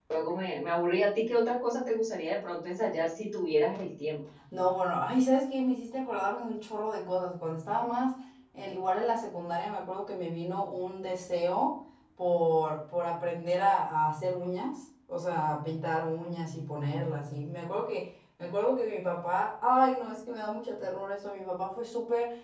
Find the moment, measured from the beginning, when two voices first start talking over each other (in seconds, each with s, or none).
none